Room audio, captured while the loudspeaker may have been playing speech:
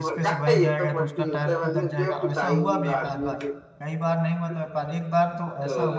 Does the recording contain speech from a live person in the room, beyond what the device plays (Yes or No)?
Yes